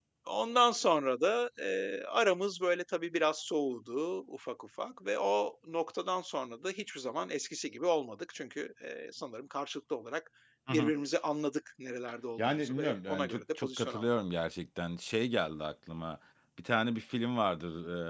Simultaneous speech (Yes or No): Yes